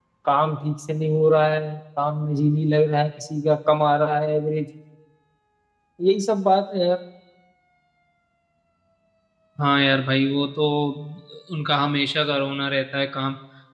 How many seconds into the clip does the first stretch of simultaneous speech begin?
none

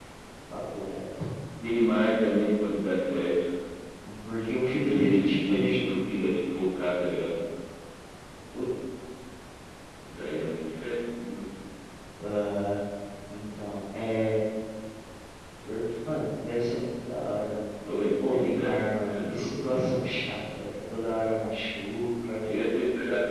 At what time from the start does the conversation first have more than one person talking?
4.6 s

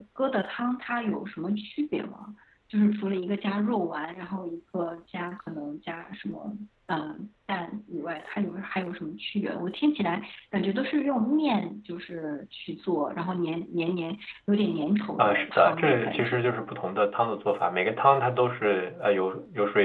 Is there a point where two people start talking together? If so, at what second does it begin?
15.2 s

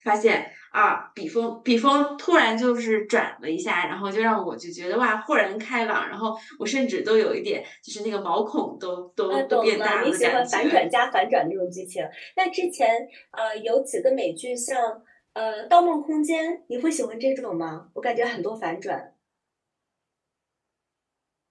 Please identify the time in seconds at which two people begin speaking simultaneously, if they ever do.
9.3 s

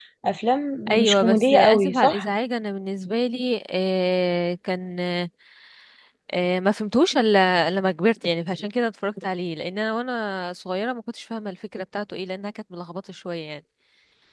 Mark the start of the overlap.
1.0 s

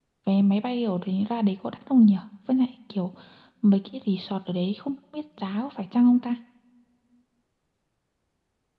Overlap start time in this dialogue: none

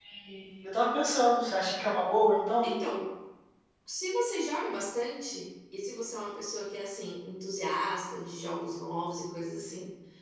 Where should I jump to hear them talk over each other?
none

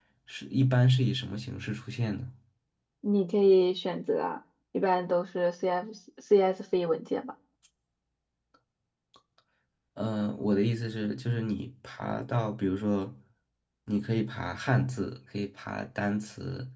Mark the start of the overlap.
none

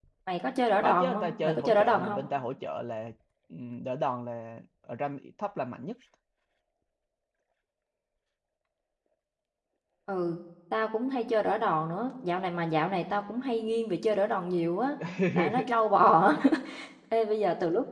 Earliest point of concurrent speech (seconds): 0.8 s

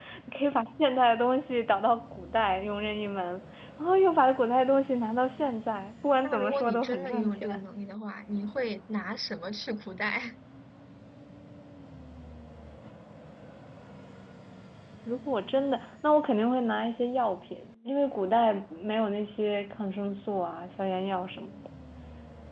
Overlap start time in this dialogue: 6.2 s

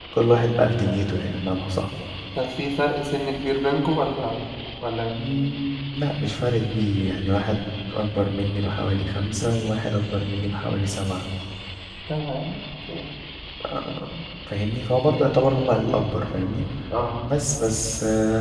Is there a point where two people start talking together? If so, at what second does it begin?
none

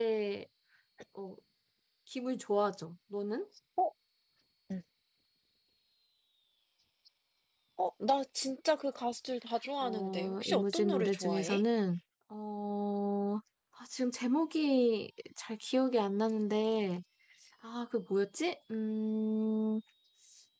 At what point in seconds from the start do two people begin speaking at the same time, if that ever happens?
9.8 s

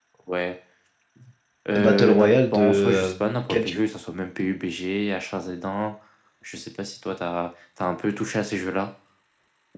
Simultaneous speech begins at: 1.8 s

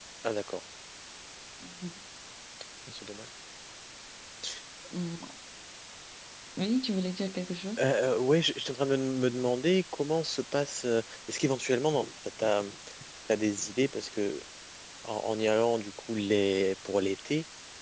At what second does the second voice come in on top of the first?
none

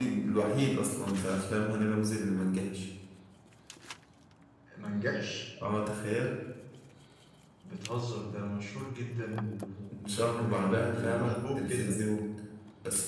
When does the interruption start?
9.9 s

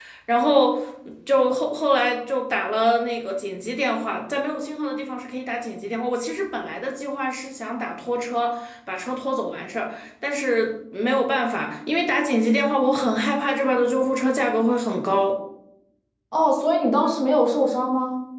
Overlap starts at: none

